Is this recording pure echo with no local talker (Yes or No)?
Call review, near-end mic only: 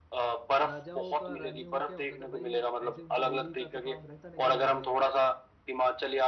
No